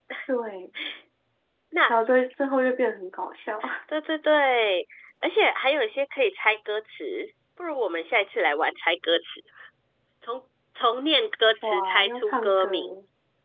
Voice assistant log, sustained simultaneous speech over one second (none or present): present